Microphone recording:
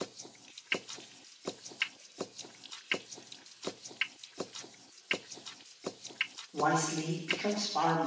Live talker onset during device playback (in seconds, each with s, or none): 6.5 s